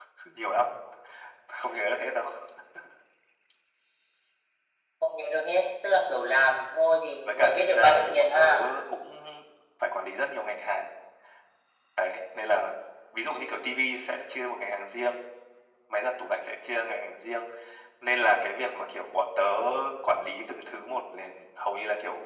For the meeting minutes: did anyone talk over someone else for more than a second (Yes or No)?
Yes